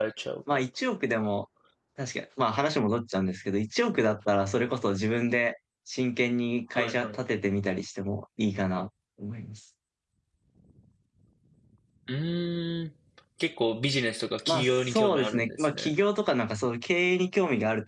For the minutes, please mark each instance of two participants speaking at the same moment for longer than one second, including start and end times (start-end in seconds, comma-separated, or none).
14.5-15.9